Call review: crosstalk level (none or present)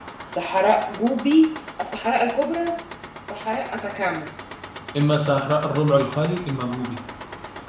none